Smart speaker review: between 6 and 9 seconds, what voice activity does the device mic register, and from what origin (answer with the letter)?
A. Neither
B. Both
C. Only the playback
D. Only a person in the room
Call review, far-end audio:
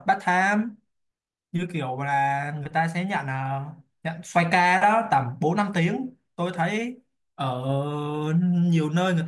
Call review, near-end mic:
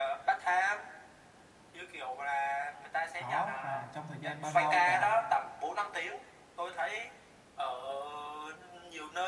C